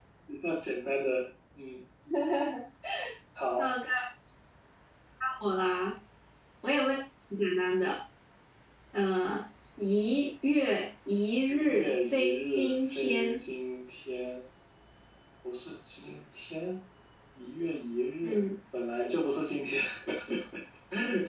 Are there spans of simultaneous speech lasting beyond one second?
Yes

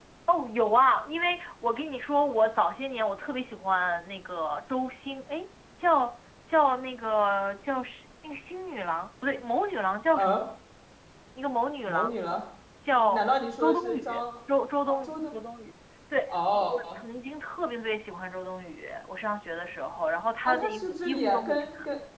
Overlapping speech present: Yes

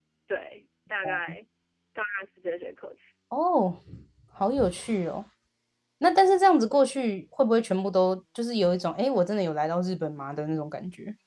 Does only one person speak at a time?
Yes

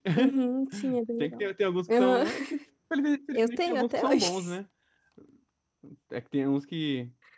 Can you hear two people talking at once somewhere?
Yes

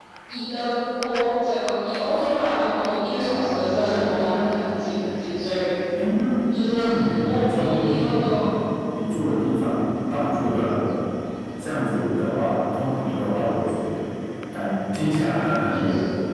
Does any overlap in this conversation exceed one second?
Yes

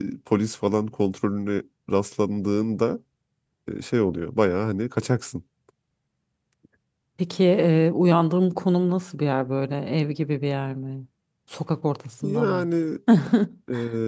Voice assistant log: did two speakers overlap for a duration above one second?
No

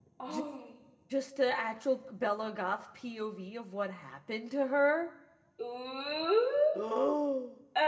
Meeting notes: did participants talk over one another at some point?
No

